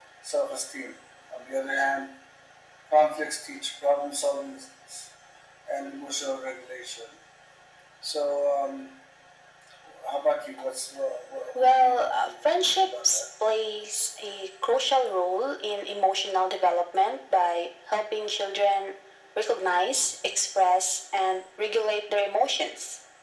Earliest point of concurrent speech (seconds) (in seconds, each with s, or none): 11.6 s